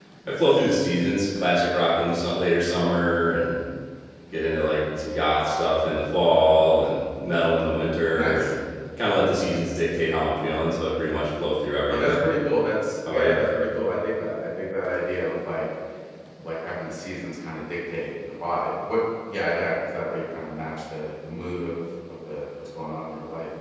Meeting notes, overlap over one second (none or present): none